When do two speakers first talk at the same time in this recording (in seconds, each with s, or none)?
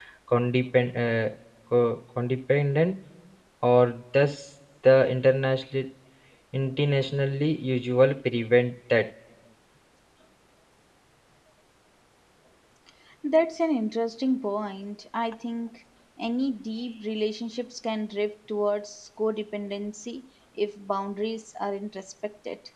none